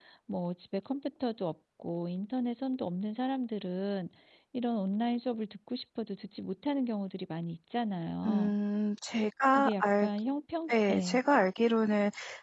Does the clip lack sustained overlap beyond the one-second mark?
Yes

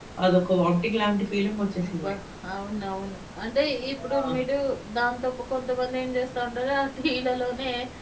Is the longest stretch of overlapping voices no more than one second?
Yes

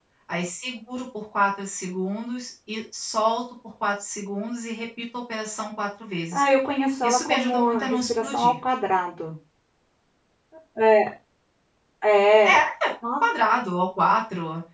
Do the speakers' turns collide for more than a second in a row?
Yes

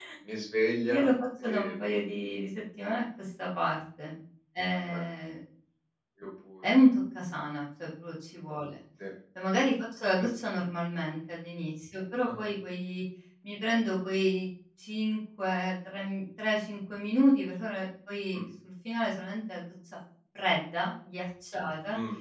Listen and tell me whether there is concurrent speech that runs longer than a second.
No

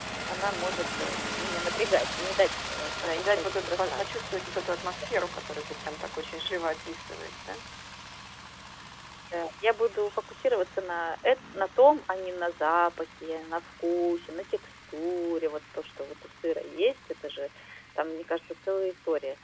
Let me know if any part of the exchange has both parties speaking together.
Yes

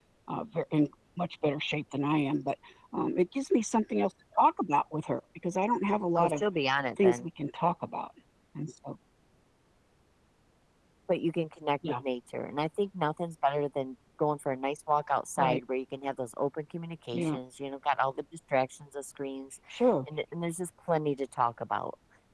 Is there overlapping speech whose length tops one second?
No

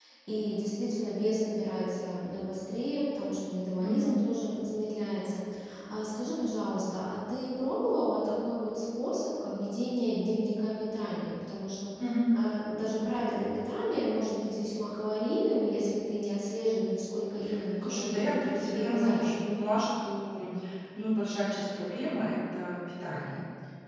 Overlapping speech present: Yes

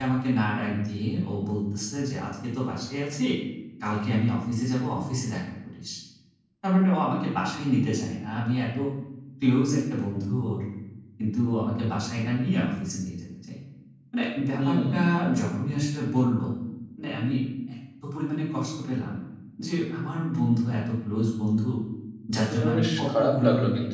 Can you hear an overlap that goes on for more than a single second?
Yes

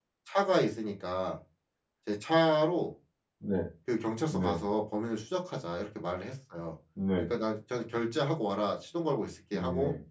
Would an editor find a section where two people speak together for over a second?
No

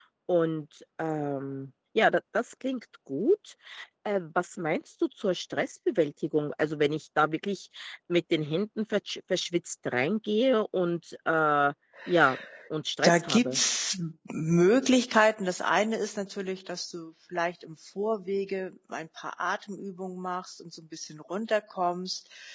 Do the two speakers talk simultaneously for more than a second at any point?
No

